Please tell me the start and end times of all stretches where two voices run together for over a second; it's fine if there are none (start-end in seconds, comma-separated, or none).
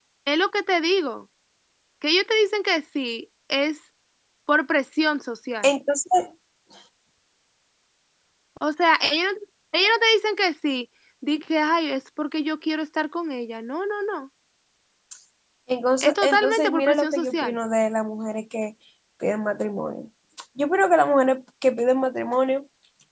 16.0-17.6